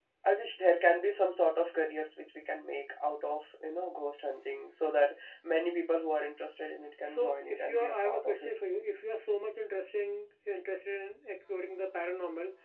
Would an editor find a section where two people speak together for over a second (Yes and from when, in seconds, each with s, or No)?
Yes, from 7.0 s